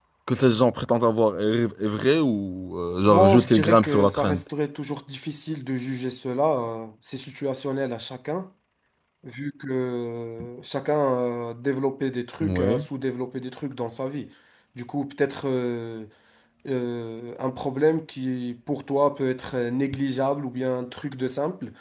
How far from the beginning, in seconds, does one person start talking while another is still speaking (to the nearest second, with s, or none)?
3 s